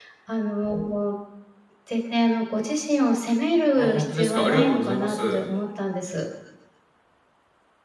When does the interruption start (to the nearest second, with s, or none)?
4 s